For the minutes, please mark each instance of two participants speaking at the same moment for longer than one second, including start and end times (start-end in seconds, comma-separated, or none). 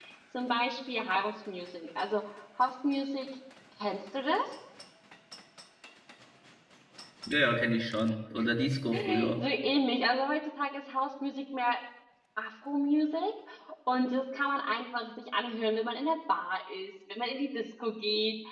none